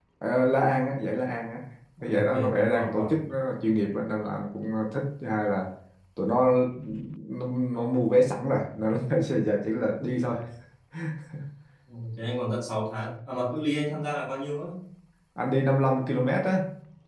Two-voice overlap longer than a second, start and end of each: 2.0-3.2

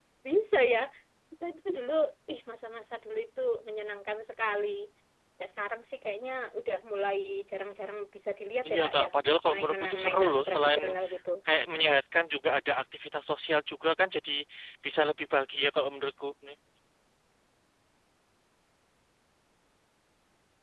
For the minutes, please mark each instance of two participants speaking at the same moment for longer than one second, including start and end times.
9.5-10.8

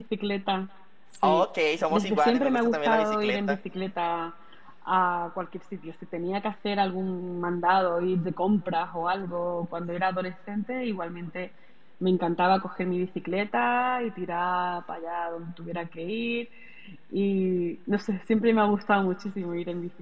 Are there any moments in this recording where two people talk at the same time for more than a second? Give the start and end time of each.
1.9-3.6

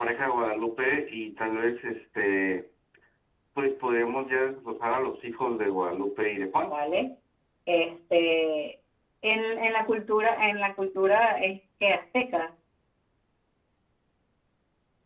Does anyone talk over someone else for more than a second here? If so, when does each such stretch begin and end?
none

